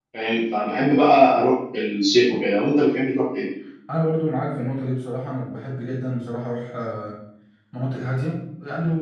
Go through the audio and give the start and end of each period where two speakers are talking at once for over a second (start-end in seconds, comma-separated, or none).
none